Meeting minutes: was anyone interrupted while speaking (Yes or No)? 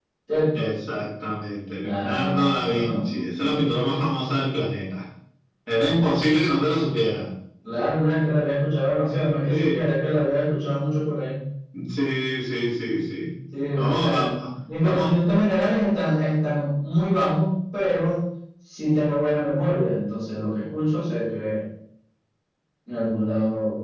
Yes